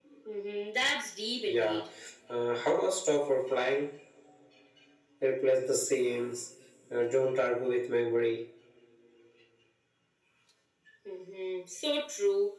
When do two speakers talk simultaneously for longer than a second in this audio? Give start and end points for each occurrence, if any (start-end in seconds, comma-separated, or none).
none